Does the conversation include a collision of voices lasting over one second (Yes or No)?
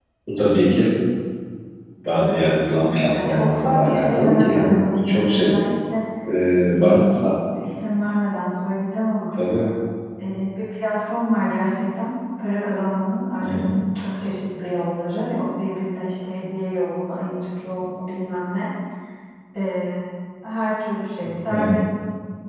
Yes